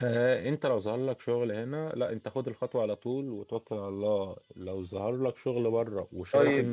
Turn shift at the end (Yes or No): Yes